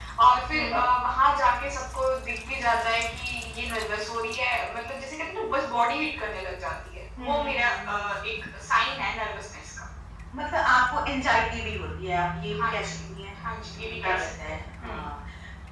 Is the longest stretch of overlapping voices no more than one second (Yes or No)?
No